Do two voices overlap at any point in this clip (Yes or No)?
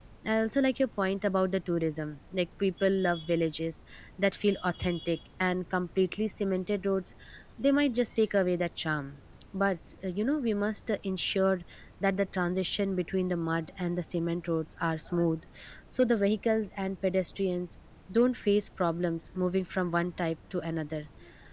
No